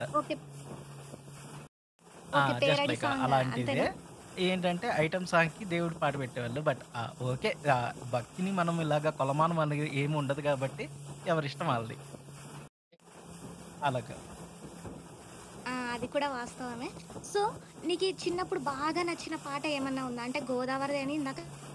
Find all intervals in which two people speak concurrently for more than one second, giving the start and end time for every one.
2.4-3.8

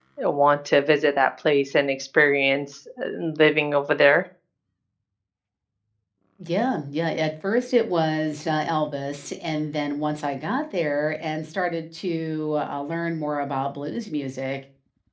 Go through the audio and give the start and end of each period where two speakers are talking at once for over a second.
none

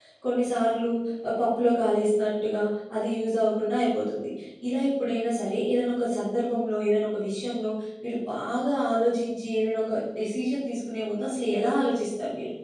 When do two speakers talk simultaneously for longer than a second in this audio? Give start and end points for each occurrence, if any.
none

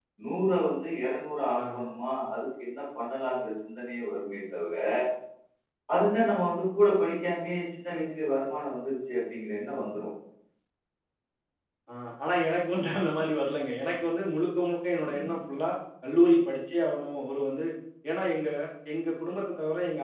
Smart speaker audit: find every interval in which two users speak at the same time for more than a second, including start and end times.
none

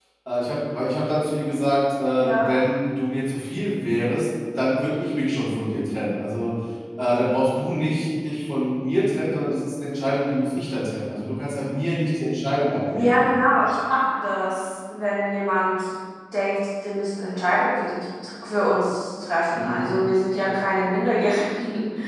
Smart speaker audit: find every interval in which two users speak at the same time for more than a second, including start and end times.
none

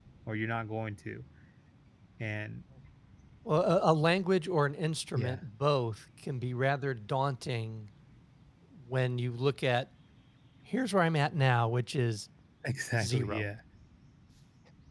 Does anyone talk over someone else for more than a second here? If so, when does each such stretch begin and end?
none

